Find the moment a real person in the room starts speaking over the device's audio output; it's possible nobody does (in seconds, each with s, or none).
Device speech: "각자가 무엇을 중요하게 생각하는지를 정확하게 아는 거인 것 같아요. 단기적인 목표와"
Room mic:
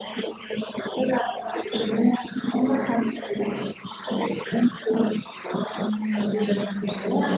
5.8 s